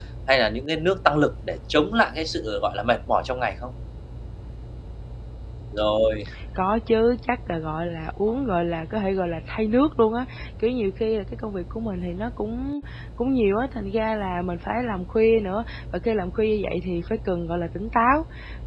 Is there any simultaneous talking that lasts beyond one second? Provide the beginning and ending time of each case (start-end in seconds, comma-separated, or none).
none